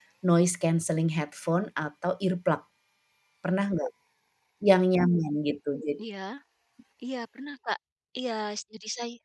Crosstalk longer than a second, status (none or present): none